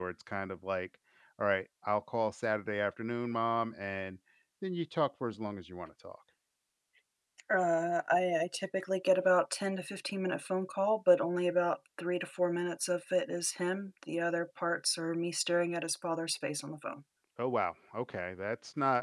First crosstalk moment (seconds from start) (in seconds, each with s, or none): none